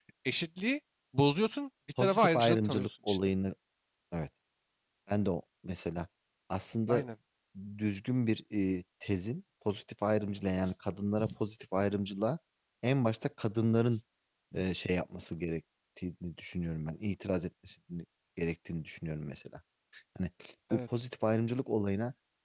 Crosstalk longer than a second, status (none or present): present